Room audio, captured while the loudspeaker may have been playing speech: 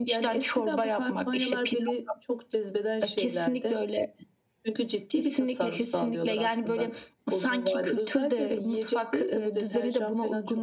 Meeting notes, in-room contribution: none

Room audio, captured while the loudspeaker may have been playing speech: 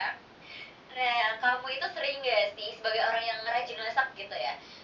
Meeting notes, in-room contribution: none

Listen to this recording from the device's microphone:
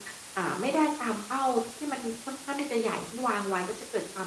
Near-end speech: none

